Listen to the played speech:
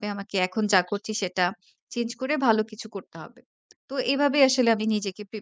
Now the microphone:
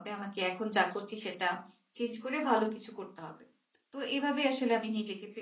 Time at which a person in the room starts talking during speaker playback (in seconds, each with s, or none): none